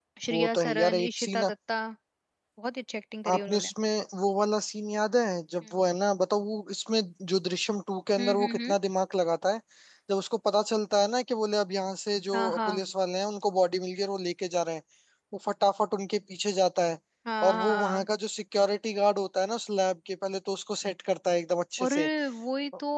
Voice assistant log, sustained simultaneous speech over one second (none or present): present